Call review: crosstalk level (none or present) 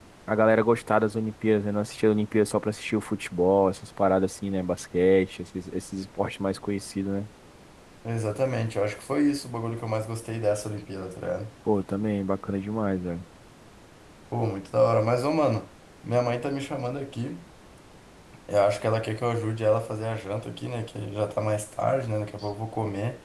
none